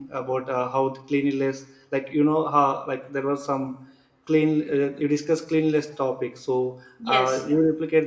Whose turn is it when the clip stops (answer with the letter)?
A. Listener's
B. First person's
B